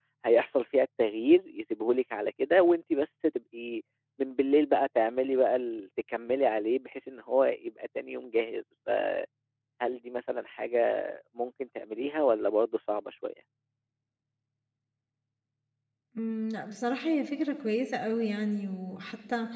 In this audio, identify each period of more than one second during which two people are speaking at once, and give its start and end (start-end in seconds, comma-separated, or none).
none